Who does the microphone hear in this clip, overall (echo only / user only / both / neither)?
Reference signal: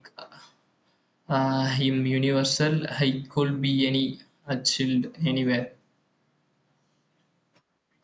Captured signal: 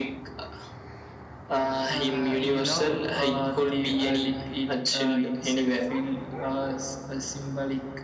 both